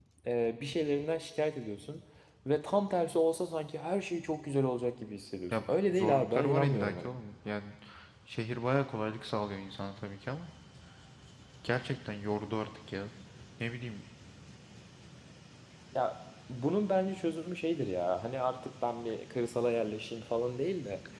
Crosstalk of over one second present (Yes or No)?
Yes